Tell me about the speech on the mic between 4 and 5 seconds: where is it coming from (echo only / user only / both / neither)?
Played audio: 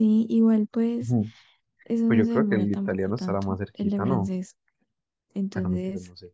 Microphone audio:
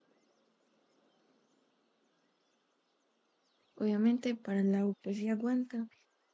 user only